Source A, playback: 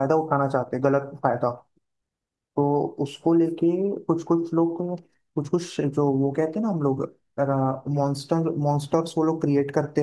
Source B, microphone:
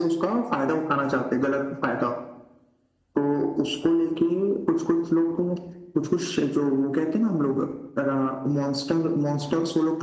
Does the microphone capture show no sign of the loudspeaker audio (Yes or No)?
No